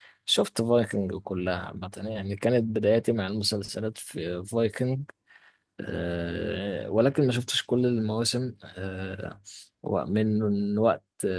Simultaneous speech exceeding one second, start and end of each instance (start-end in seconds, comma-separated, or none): none